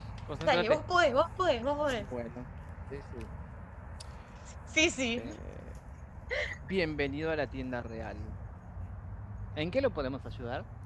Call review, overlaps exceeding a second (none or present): none